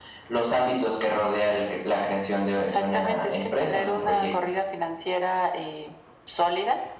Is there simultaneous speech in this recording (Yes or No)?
Yes